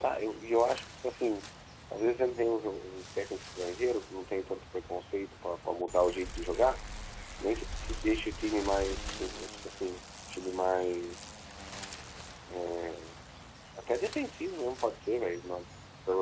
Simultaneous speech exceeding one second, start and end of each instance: none

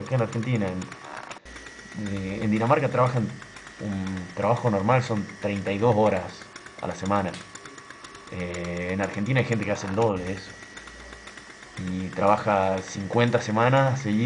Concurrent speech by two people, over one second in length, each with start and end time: none

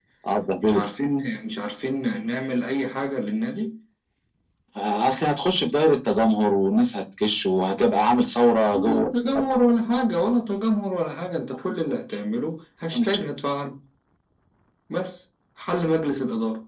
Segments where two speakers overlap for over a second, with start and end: none

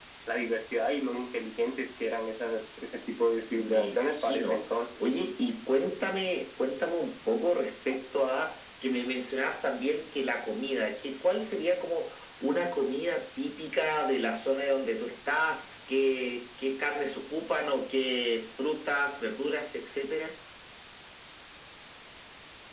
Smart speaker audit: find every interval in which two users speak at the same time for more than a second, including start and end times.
3.6-4.9

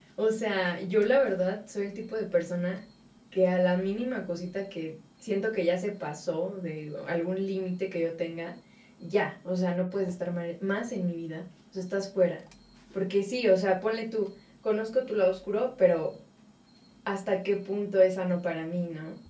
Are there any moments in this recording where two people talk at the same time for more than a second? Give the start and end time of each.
none

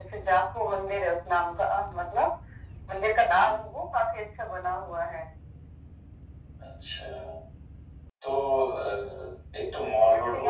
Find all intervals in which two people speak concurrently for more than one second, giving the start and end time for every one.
none

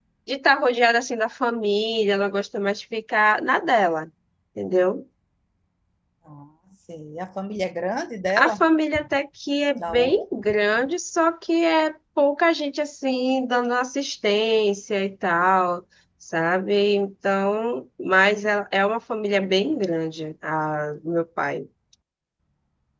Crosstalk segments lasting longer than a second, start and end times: none

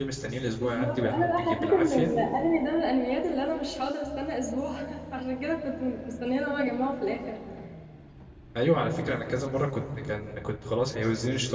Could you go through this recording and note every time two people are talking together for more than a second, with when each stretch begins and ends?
0.6-2.1

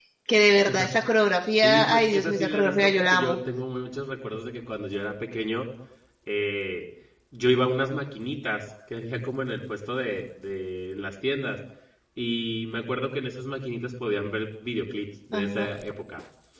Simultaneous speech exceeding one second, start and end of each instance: 1.6-3.4

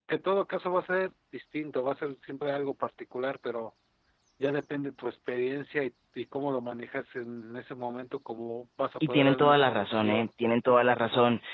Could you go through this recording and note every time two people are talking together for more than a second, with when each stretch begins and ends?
9.1-10.3

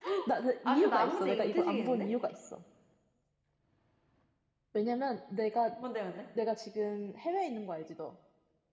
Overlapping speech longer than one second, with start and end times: 0.7-2.1

